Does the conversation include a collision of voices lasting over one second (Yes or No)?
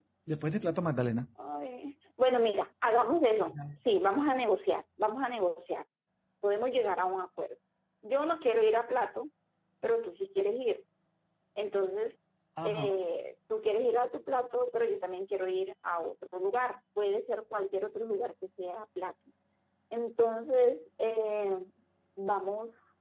No